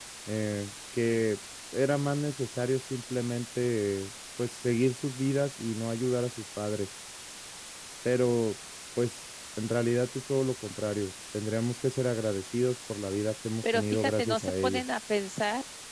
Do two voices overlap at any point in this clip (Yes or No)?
Yes